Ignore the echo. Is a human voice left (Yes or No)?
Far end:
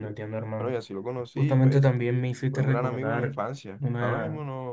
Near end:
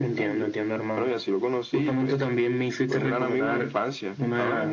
No